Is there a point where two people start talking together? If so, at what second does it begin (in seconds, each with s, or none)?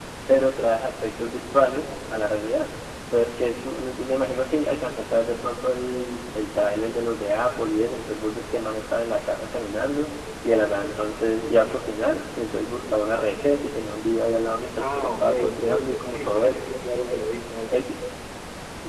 14.8 s